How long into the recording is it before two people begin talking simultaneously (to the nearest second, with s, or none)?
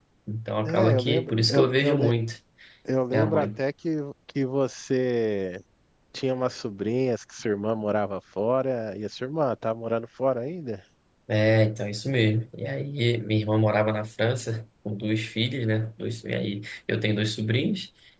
1 s